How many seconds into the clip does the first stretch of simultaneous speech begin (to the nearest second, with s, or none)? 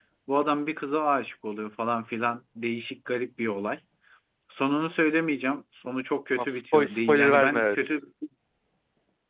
6 s